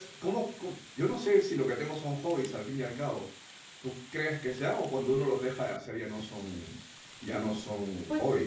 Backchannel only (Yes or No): No